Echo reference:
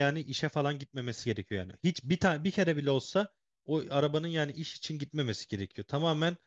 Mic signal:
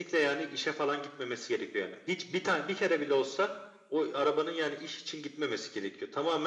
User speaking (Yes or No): No